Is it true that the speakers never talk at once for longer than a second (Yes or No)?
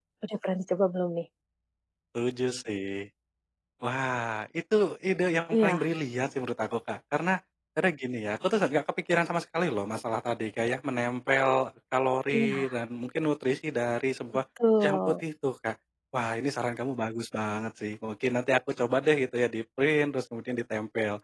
Yes